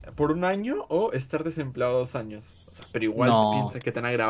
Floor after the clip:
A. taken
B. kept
B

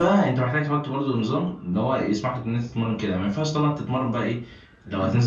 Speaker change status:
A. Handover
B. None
B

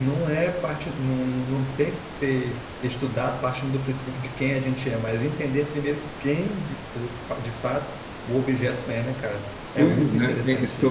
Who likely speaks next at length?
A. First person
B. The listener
B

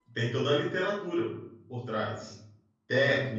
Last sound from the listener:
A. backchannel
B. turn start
A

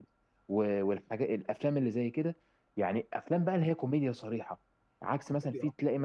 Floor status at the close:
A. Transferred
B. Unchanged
B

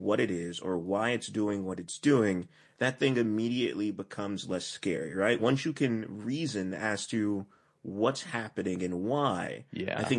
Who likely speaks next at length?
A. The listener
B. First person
B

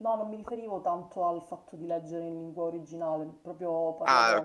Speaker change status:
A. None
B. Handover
A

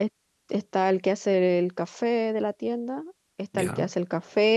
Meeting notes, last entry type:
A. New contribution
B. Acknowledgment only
B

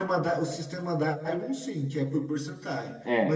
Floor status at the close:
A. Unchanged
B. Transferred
A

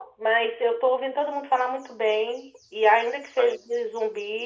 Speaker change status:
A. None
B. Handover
A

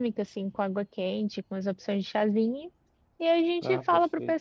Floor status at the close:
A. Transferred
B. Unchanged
B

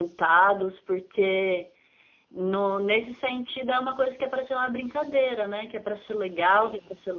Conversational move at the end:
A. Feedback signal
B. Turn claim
A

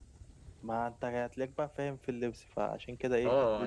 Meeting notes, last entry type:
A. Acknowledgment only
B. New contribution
B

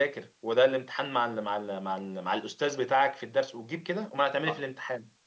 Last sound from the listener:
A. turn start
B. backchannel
A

